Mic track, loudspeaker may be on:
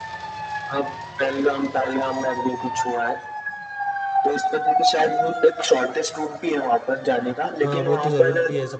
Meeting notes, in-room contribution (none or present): present